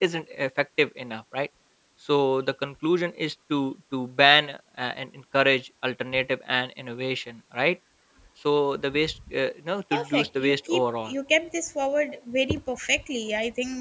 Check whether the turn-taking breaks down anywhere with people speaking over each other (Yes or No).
Yes